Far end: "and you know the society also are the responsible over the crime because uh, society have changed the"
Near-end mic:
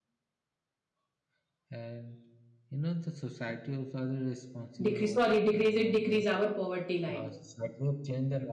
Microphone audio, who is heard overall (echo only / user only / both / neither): both